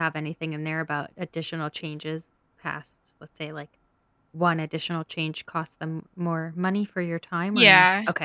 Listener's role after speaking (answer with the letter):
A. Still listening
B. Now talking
B